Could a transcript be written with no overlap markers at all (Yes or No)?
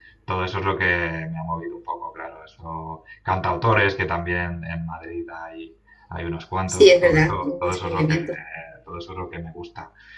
No